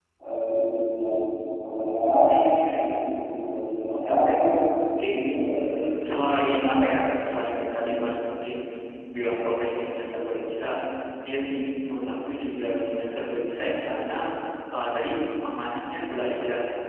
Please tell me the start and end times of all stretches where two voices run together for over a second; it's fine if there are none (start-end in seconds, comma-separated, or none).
none